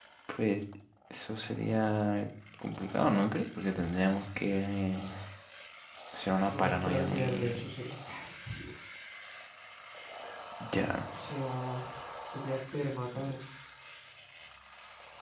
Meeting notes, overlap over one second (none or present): present